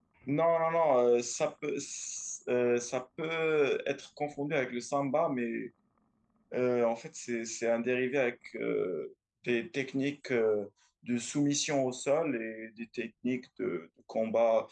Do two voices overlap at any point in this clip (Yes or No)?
No